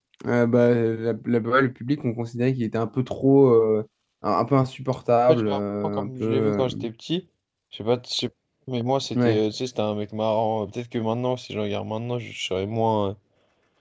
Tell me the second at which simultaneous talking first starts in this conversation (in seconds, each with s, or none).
5.3 s